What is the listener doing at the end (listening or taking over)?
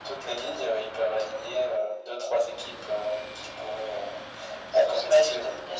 taking over